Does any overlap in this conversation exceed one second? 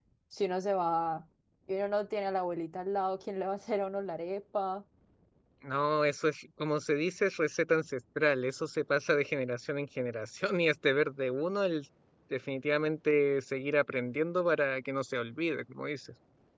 No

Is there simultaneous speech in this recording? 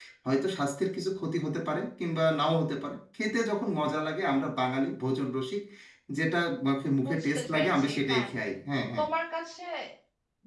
Yes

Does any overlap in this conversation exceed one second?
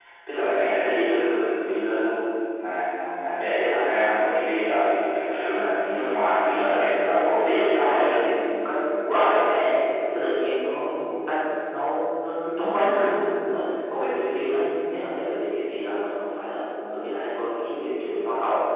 Yes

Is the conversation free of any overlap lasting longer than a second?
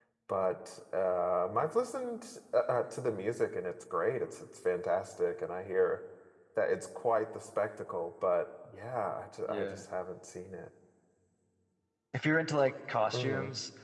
Yes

